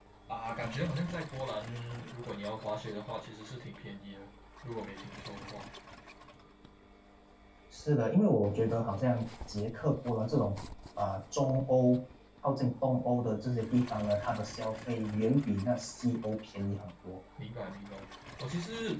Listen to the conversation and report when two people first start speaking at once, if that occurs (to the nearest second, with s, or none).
none